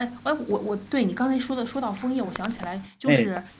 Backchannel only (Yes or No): Yes